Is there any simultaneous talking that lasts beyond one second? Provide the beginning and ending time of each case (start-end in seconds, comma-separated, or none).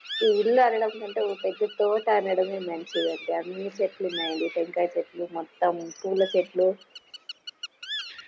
none